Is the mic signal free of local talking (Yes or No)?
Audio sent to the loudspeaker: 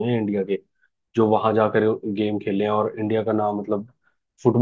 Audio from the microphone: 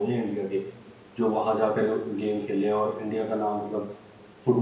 Yes